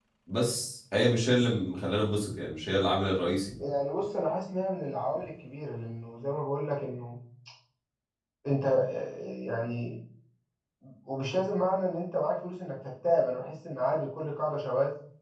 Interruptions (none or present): none